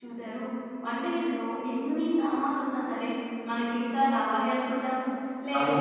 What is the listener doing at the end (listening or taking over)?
listening